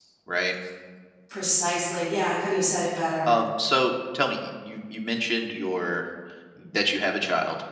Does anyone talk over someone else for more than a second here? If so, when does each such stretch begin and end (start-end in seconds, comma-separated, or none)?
none